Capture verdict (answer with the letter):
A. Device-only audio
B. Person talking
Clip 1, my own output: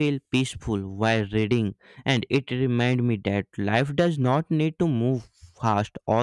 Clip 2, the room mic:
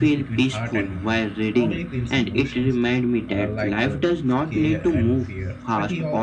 B